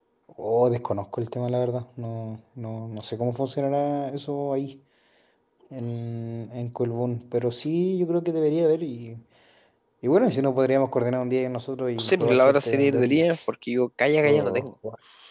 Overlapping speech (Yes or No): Yes